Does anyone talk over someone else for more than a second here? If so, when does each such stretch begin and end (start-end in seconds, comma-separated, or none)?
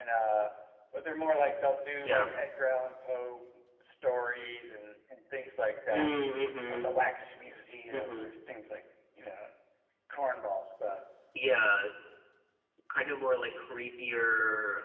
none